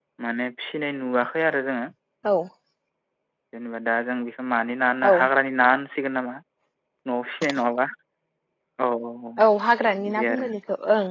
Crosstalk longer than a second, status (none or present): none